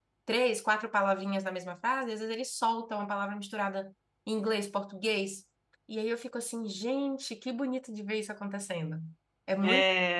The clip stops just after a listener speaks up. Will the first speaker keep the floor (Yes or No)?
Yes